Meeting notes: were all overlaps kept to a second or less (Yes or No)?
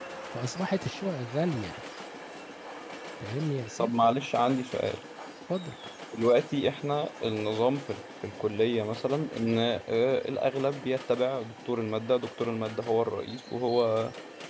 Yes